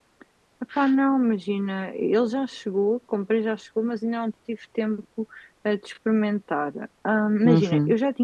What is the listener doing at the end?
listening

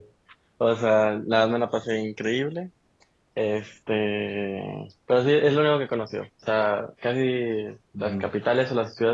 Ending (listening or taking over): listening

